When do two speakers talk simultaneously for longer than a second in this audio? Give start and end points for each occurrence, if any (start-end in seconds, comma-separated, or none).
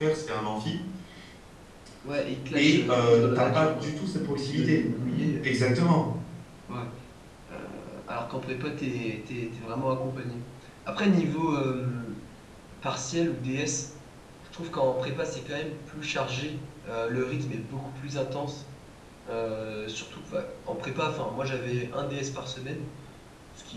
2.5-4.0